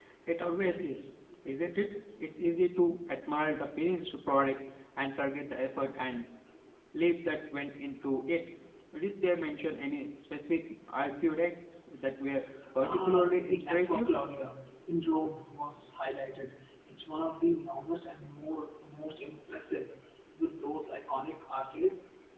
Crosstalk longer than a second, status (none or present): present